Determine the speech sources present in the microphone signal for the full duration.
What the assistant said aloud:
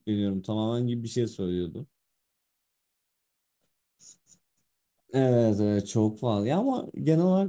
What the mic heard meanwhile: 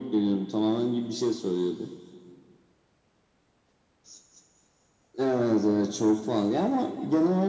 echo only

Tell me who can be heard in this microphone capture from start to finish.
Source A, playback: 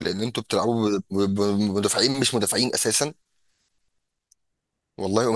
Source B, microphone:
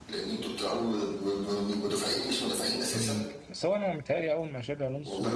both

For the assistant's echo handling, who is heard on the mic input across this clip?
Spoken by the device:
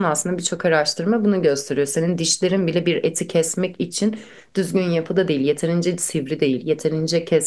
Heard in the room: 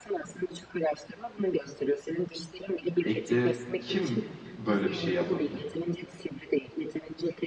both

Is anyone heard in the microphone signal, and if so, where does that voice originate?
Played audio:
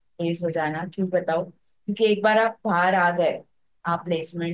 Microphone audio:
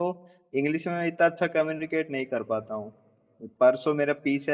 user only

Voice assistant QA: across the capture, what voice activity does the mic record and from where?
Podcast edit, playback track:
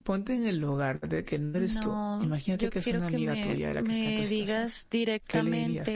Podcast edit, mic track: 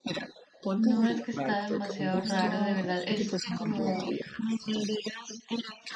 both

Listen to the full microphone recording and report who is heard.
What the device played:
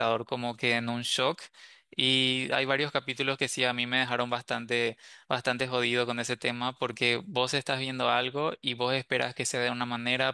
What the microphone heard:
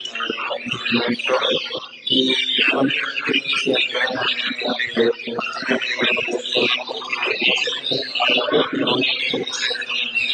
echo only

